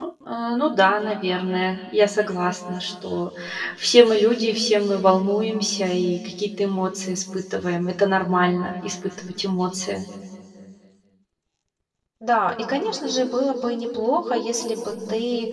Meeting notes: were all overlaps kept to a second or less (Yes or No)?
Yes